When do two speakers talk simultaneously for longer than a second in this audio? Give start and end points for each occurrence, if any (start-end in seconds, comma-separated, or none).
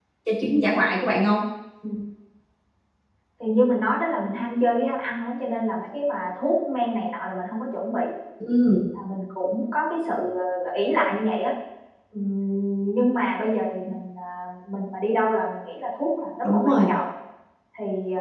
none